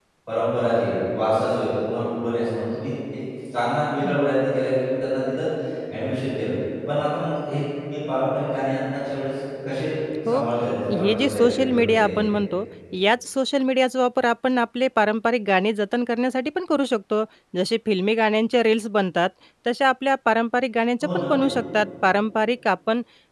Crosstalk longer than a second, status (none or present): present